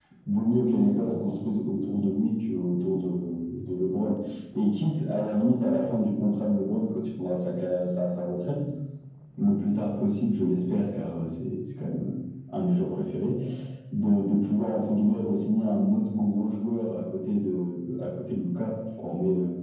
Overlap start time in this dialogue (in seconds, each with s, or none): none